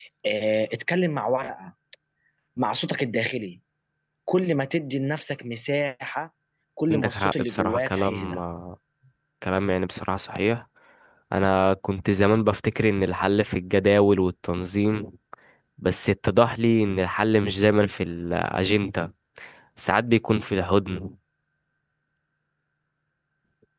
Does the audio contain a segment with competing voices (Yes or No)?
Yes